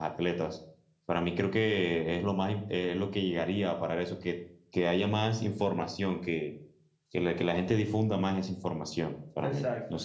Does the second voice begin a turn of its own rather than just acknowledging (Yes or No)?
Yes